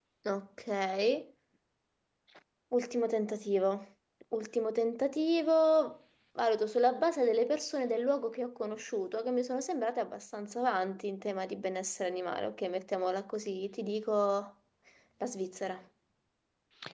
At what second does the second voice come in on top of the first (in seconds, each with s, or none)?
none